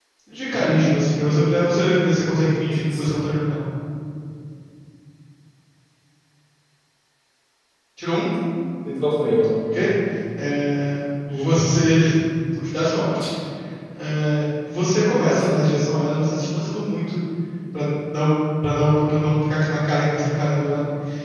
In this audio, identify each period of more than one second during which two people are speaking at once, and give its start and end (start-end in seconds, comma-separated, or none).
none